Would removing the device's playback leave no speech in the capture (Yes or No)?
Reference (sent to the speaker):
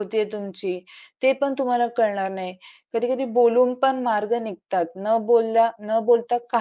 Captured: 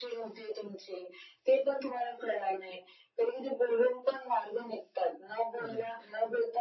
No